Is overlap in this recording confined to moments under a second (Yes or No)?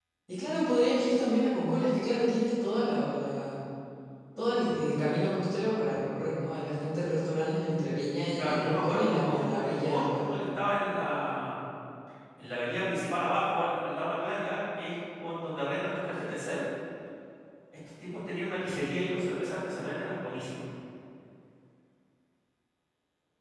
No